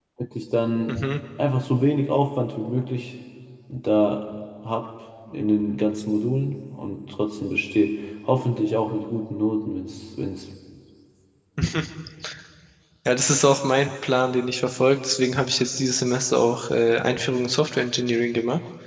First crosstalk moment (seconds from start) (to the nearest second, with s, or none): none